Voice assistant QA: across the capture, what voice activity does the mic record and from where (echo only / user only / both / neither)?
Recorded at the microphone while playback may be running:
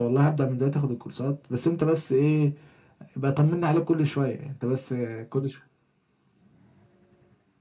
echo only